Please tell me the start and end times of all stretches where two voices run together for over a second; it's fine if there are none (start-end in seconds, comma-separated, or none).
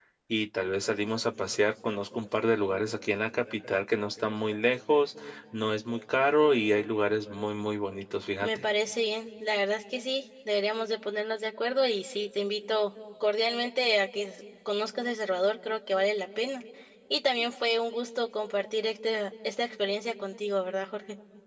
none